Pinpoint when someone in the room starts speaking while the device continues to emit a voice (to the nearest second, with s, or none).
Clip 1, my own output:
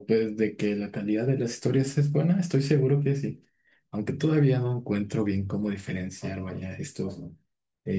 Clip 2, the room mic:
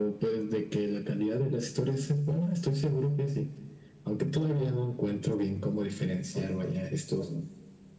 none